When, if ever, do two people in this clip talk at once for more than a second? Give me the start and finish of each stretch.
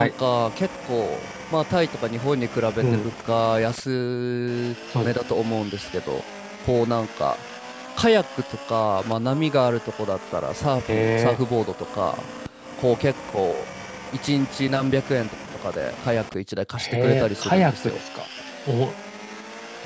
16.8-18.0

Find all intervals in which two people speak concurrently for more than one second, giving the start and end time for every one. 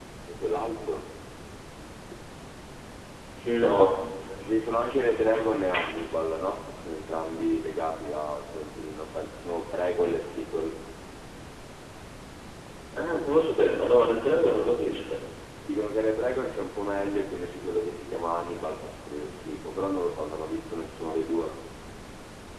none

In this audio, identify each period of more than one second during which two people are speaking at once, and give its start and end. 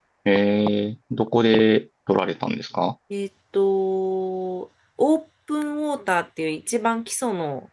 none

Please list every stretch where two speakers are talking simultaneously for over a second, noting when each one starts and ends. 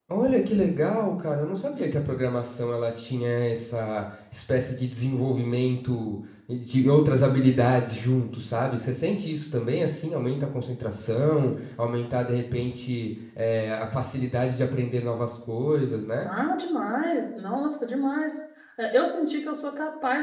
none

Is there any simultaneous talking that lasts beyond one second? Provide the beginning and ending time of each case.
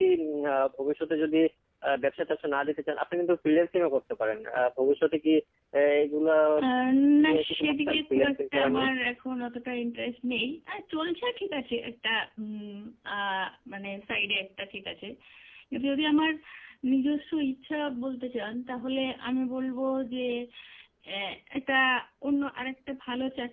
7.2-8.9

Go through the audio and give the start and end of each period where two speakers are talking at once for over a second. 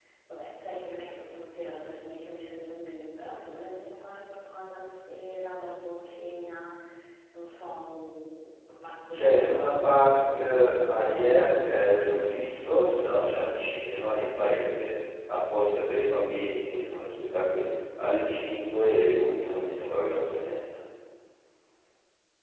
9.1-12.5

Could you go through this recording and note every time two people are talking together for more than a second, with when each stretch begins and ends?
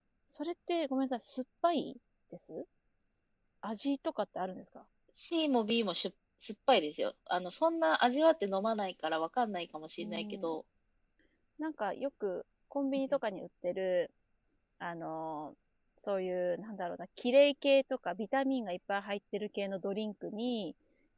none

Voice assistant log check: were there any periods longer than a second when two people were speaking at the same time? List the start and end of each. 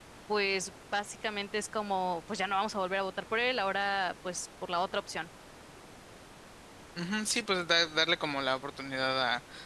none

